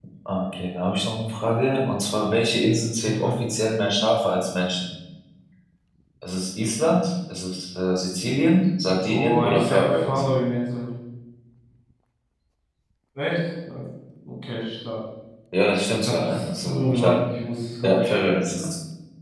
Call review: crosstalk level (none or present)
present